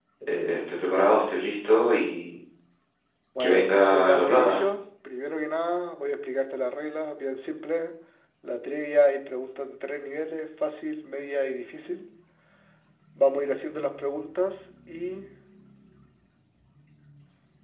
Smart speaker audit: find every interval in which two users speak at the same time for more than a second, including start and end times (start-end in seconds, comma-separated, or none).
3.4-4.6